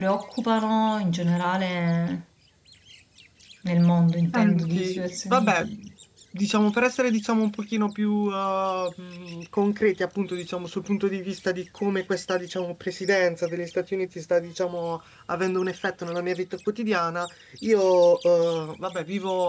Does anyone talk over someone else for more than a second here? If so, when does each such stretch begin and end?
4.3-5.6

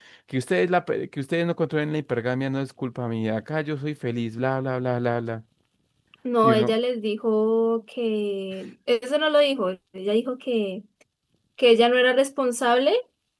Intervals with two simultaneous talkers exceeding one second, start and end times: none

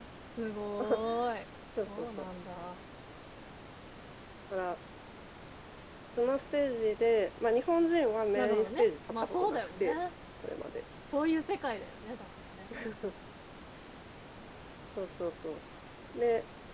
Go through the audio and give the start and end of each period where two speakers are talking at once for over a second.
8.4-9.9

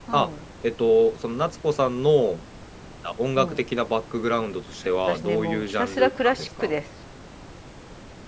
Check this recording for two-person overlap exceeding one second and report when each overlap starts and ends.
5.1-6.7

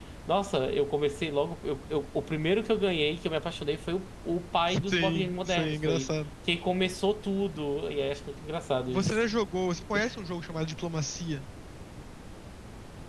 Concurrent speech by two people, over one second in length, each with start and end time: 4.9-6.1

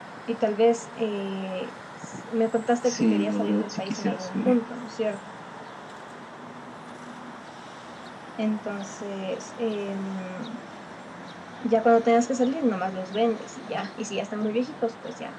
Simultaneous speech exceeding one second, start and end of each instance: 2.8-4.5

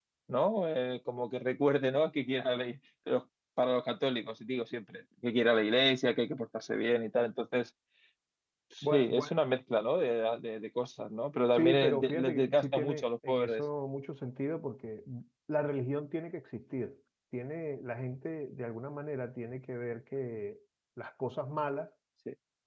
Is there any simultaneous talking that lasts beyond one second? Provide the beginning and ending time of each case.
11.6-13.6

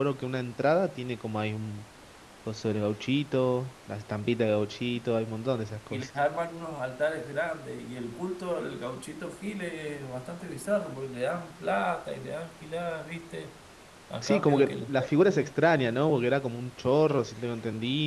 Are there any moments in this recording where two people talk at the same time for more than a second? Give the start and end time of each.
14.2-15.5

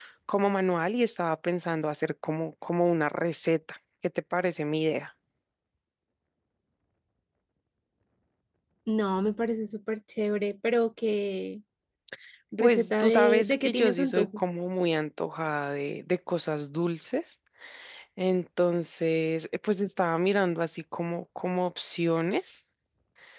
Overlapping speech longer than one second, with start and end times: 12.6-14.4

